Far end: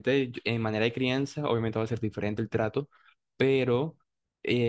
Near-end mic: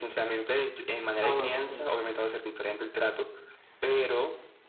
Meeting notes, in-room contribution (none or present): present